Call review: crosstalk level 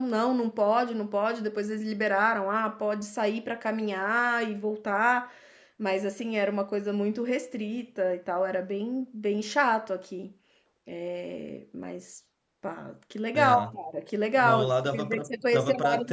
present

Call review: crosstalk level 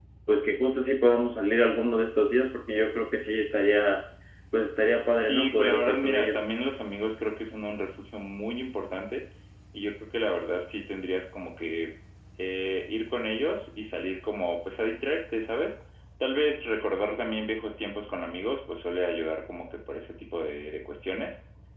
present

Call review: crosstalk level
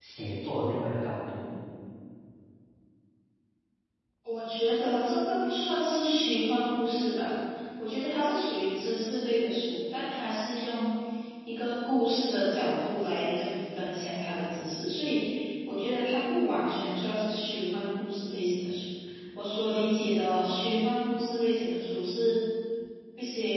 none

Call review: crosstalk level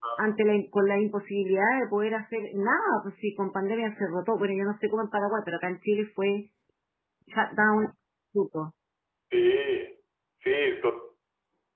none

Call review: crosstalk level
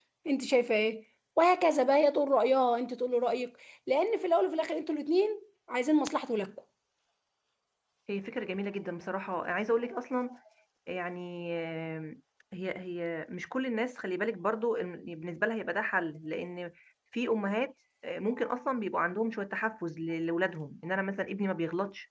none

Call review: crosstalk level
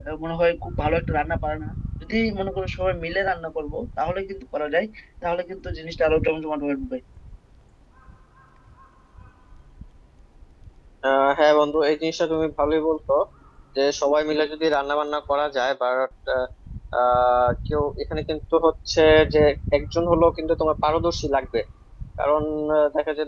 none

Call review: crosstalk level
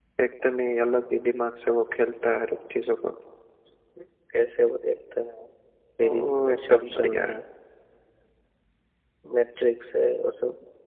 present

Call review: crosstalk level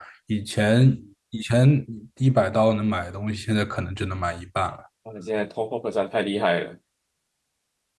none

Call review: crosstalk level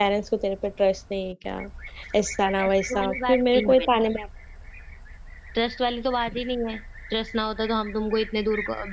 present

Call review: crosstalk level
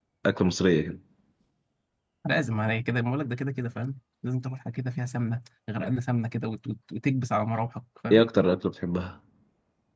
none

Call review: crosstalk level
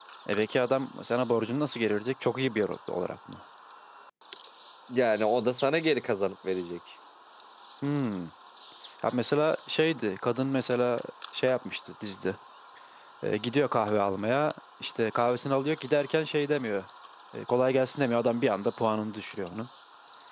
none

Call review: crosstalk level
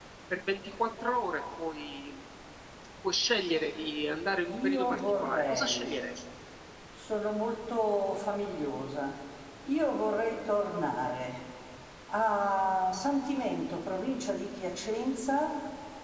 present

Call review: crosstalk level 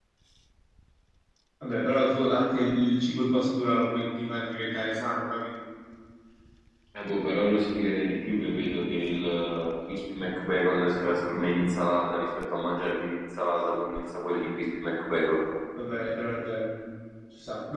none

